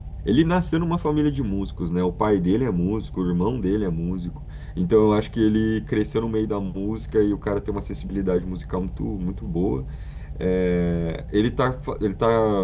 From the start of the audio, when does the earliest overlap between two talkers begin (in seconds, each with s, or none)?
none